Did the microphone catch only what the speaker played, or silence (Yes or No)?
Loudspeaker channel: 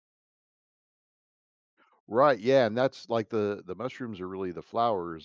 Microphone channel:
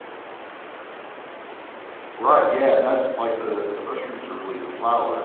Yes